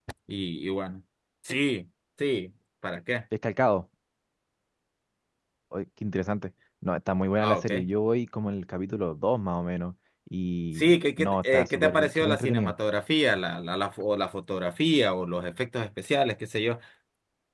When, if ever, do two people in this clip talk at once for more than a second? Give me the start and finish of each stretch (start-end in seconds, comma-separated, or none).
10.8-12.7